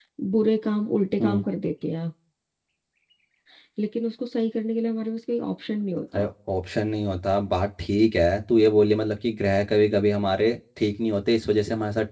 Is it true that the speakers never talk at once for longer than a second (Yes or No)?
Yes